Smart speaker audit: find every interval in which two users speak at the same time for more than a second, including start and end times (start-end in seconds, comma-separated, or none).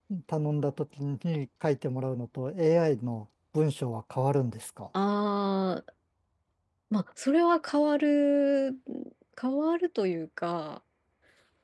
none